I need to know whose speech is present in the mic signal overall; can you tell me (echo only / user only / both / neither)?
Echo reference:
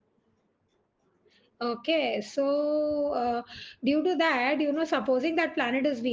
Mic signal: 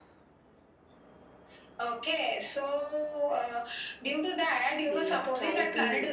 both